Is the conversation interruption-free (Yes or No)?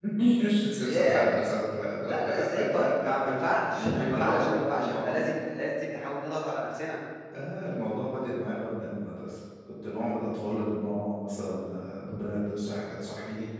No